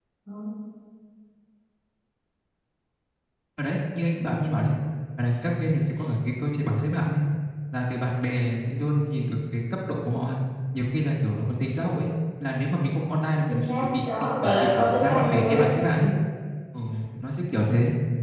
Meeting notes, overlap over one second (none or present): present